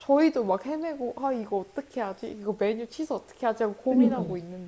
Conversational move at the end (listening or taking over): listening